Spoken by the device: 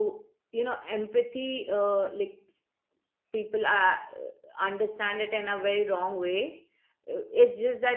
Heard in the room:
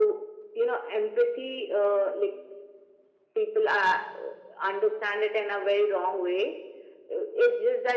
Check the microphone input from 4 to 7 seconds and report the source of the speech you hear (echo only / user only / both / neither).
echo only